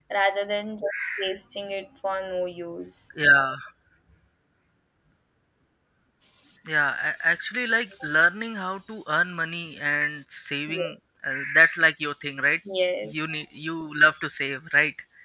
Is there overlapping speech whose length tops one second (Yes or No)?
No